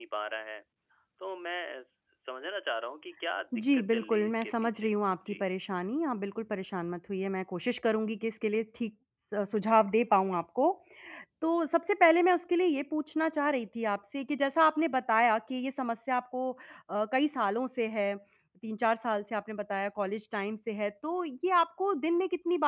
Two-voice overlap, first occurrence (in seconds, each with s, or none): 3.5 s